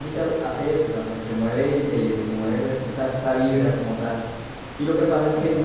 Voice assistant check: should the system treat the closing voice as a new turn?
No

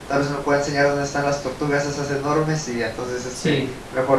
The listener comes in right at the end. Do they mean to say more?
No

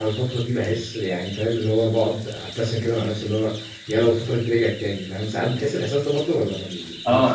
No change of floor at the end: No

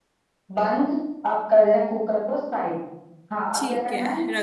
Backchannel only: No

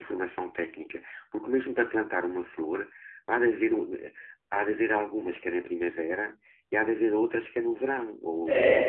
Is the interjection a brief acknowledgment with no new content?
No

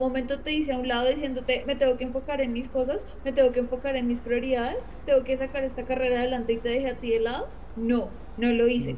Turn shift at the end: Yes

